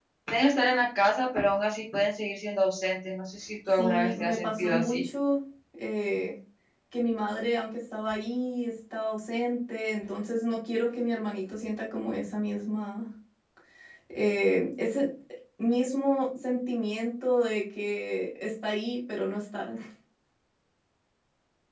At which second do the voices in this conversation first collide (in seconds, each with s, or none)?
3.7 s